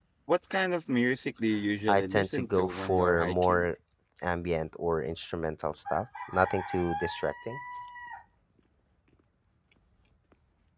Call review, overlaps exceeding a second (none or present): present